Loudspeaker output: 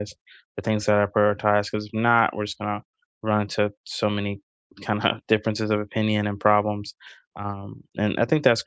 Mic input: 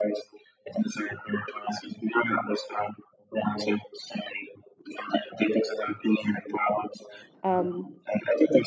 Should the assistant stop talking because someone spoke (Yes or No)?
Yes